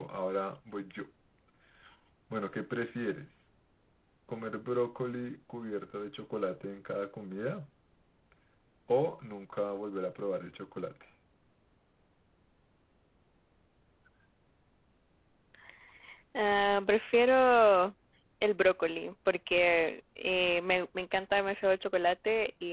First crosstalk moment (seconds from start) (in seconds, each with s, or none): none